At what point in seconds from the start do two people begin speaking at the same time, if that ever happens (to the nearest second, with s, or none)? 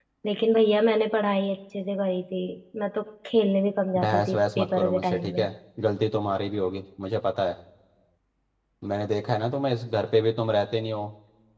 4 s